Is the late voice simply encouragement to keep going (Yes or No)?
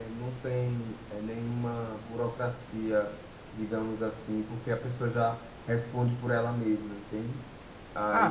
No